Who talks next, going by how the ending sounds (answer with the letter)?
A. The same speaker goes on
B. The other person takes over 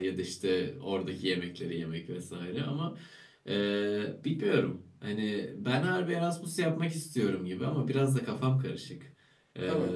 A